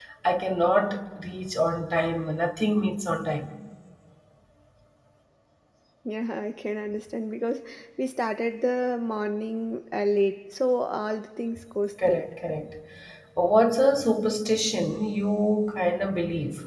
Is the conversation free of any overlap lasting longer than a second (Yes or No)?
Yes